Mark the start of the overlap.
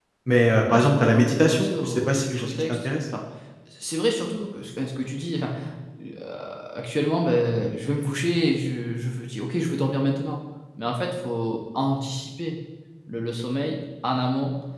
0.7 s

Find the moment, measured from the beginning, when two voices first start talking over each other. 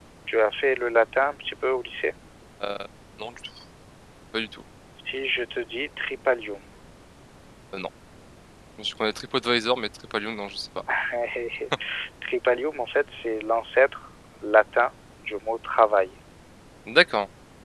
none

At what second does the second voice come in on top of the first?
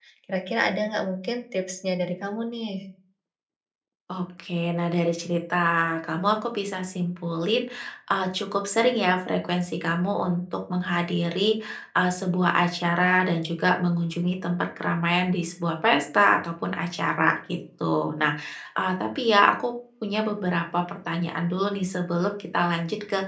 none

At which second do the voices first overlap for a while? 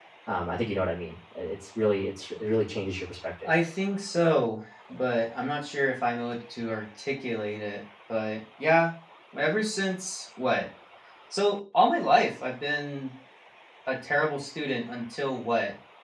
none

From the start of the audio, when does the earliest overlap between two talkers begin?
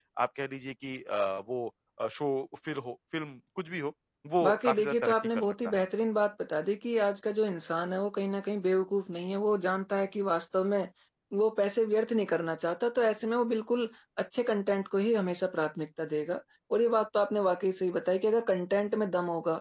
4.4 s

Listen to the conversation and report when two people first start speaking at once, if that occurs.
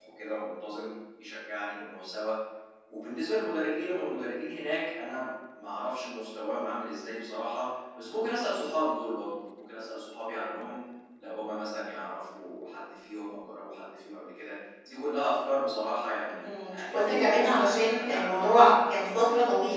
16.2 s

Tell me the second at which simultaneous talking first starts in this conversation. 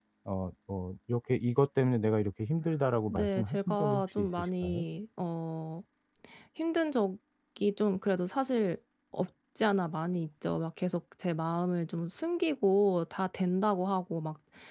3.1 s

